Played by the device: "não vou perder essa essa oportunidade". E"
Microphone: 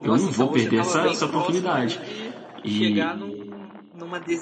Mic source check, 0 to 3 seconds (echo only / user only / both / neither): both